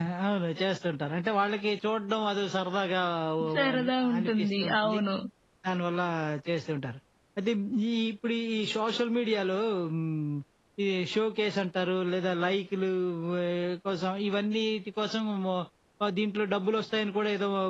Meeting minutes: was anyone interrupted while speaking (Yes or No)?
Yes